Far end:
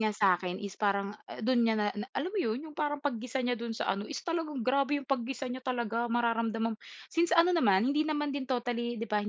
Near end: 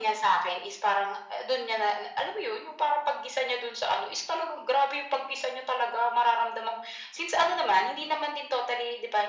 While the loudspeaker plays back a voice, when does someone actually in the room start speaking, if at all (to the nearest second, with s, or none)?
none